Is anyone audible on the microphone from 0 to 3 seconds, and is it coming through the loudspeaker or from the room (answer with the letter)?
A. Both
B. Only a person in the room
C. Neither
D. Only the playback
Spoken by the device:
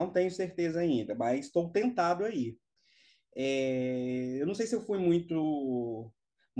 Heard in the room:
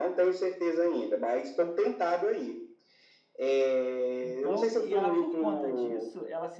D